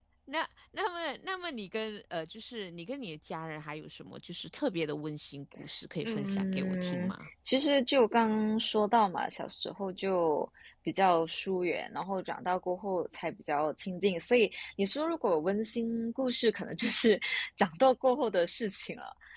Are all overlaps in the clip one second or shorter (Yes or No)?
No